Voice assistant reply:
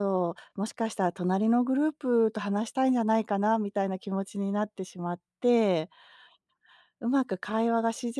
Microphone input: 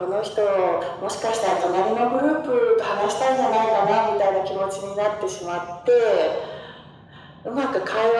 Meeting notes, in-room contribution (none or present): none